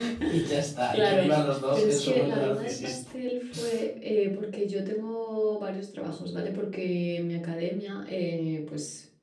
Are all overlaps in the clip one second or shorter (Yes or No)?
No